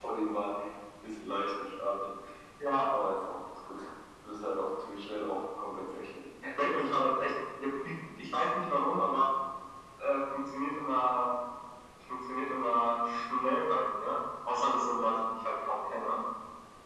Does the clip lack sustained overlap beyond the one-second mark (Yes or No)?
Yes